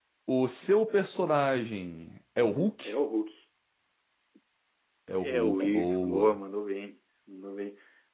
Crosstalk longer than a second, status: present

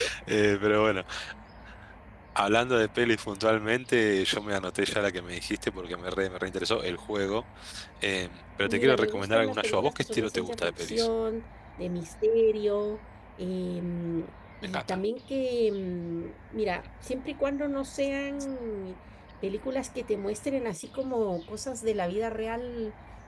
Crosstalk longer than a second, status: present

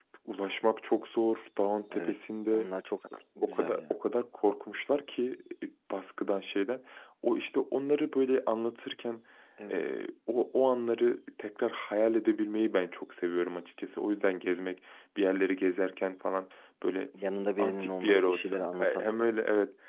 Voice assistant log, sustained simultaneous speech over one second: present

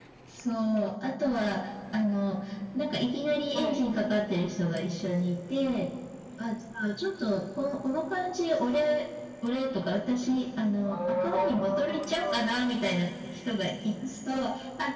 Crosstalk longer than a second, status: present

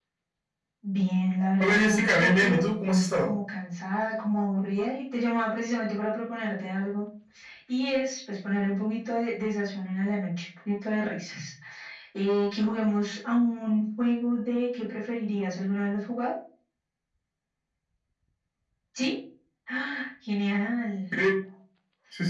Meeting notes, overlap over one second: present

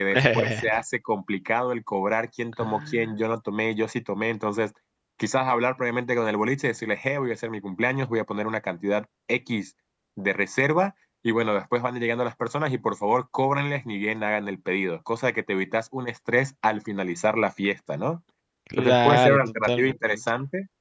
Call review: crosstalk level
present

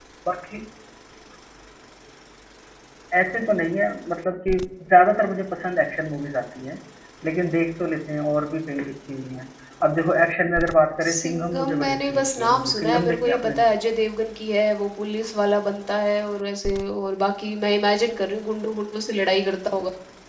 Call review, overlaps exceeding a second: present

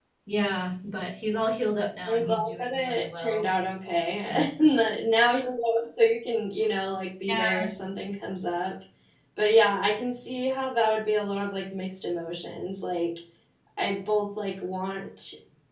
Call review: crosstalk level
present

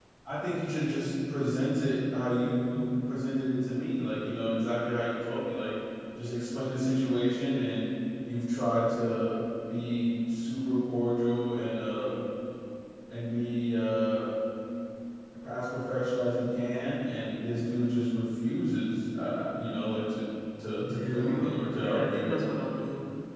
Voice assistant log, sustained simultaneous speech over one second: present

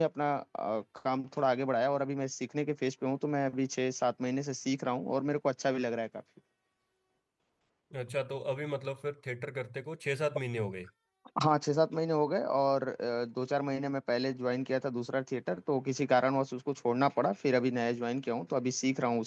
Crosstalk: none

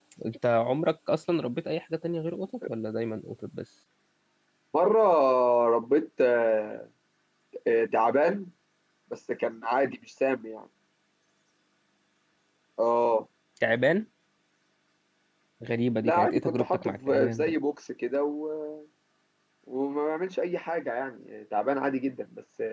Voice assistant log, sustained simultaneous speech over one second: present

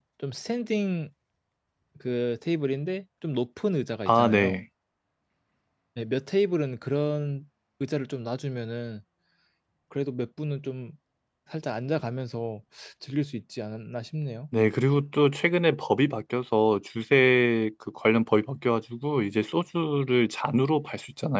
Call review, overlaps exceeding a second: none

